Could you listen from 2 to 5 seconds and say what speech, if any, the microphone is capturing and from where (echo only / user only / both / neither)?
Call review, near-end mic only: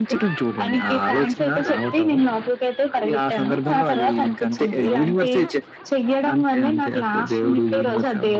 echo only